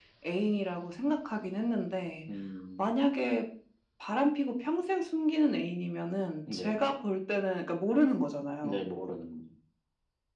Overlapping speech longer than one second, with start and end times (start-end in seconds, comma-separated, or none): none